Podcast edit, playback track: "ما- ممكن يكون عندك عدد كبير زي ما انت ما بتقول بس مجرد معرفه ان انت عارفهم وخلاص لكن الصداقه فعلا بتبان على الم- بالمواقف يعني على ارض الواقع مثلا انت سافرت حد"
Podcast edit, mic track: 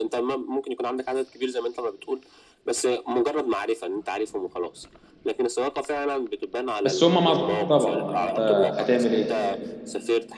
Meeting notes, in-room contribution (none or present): present